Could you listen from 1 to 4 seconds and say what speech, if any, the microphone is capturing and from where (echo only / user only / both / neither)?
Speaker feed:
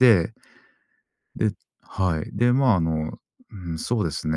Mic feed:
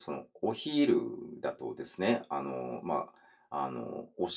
user only